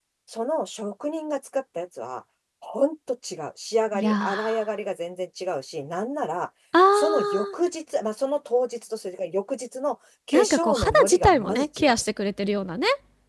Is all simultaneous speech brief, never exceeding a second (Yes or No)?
No